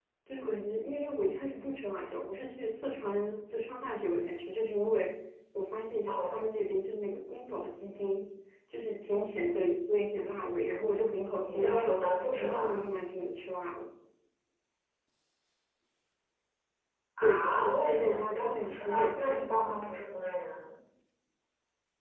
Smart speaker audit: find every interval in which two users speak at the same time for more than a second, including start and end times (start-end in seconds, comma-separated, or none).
11.4-12.8, 17.2-19.4